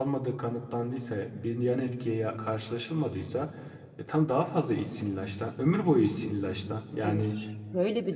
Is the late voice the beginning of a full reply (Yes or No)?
Yes